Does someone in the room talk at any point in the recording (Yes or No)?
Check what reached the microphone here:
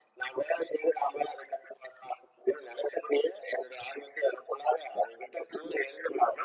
No